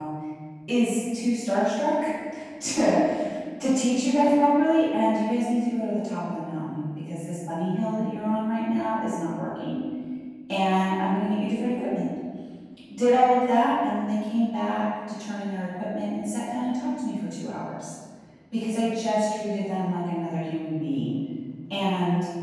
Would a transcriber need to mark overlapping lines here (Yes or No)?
No